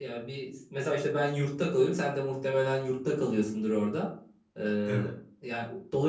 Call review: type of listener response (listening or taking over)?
listening